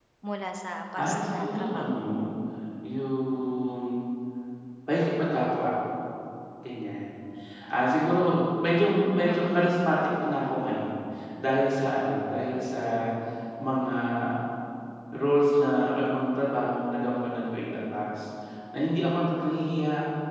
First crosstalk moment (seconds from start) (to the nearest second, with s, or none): 1 s